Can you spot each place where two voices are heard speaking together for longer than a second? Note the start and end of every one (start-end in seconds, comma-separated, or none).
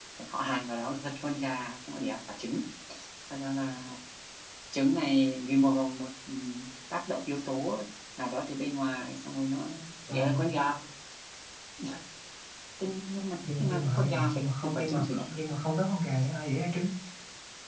13.6-15.2